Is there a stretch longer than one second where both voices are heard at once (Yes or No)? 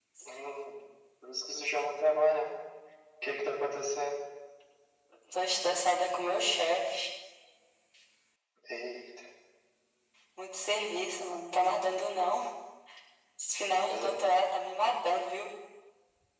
No